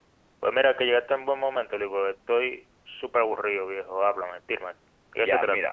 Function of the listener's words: taking over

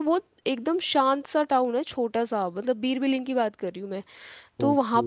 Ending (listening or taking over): listening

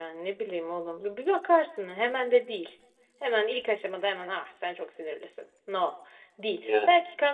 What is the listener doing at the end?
listening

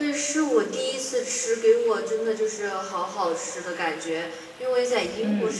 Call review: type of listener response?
listening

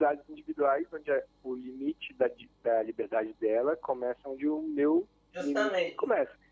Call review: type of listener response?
taking over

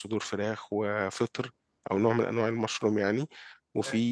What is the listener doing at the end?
listening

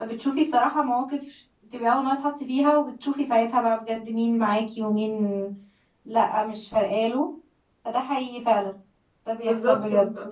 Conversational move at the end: taking over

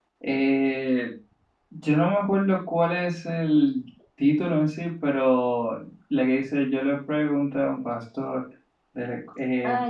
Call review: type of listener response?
taking over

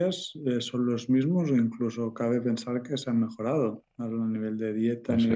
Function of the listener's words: listening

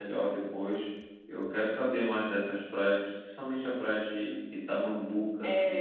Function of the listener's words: taking over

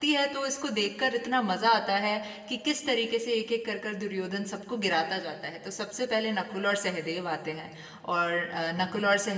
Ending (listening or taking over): listening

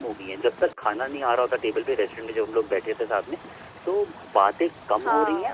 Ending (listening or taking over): listening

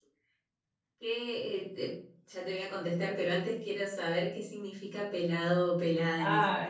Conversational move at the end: taking over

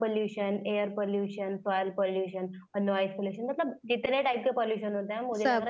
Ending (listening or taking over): listening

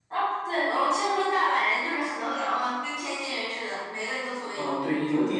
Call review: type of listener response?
taking over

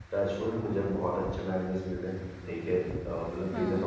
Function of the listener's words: listening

